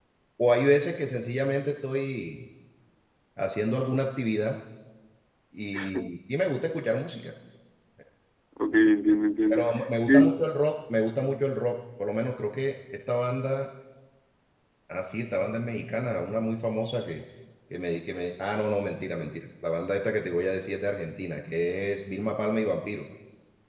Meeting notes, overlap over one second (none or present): none